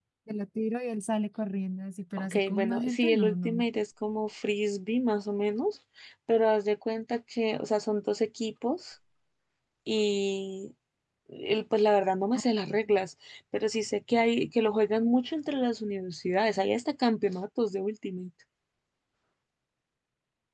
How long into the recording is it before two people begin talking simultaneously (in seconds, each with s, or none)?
2.2 s